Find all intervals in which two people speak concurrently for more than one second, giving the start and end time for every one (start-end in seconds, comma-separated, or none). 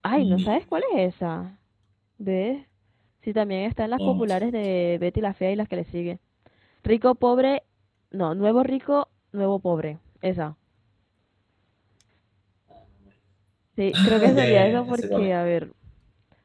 13.9-15.3